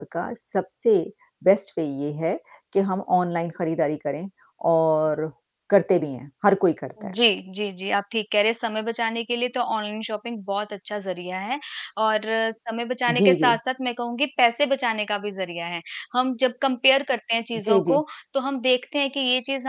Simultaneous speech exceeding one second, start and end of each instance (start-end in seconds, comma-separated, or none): none